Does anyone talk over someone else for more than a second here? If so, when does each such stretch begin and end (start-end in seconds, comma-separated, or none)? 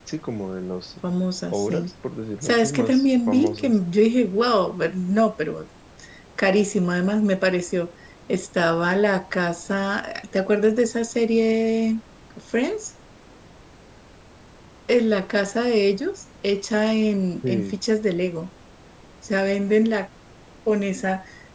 2.4-3.8